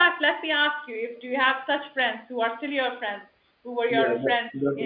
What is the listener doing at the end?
taking over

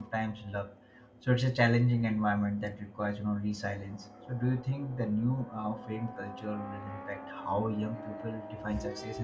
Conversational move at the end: taking over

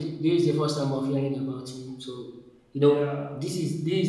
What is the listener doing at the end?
listening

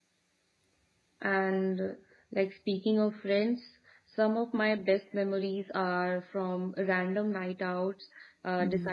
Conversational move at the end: listening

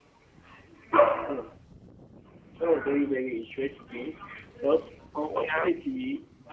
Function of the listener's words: listening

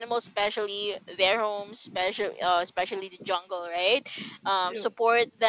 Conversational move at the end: listening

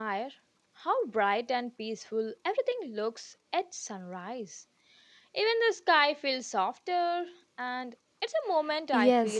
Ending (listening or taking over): taking over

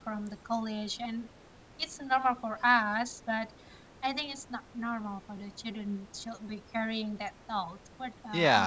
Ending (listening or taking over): taking over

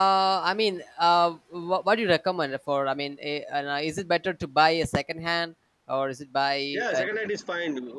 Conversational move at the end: taking over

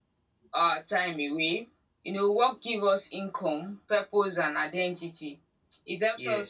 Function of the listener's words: listening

